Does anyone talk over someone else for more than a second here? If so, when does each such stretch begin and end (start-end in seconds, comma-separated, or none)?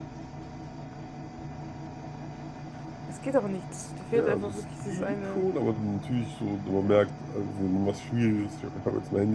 4.1-5.5